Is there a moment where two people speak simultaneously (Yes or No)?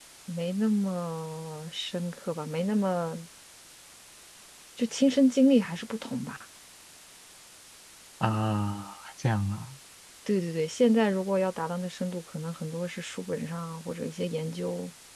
No